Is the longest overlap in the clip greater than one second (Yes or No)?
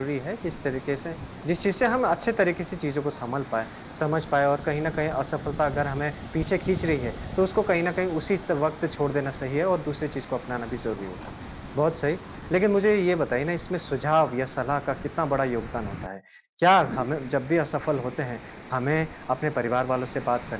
No